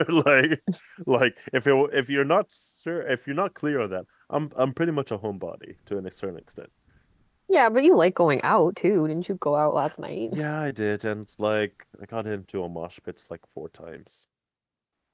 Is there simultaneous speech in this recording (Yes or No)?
No